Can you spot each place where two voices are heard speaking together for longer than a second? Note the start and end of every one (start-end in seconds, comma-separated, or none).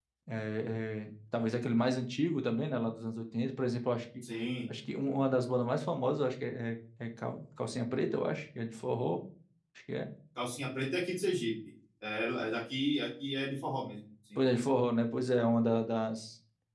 none